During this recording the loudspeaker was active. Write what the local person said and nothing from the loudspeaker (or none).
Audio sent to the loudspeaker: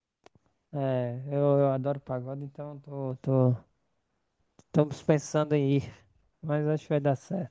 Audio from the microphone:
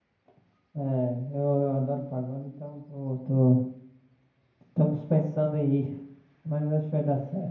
none